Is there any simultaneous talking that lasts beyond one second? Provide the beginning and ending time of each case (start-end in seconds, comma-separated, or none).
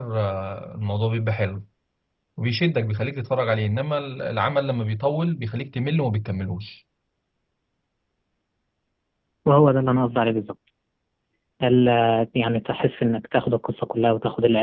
none